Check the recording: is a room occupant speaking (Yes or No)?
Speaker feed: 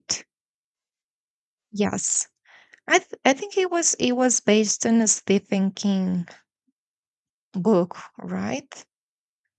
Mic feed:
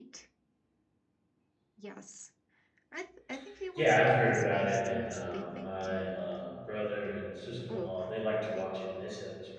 Yes